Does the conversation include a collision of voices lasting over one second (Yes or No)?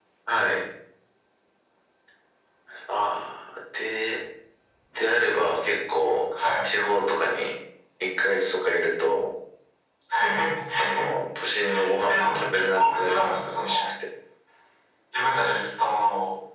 Yes